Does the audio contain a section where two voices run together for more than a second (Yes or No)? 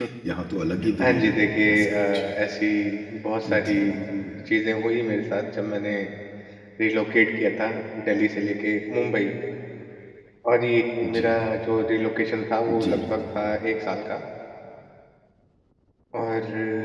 Yes